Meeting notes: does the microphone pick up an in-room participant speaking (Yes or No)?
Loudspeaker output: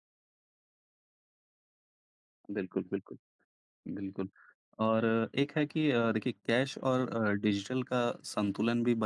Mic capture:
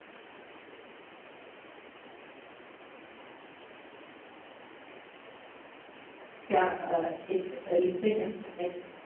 Yes